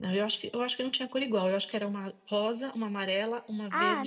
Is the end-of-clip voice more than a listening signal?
Yes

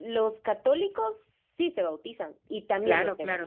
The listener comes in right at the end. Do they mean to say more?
Yes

